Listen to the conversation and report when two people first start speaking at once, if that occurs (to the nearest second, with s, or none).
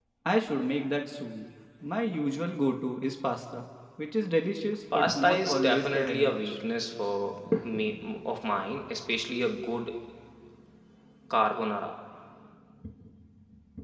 5 s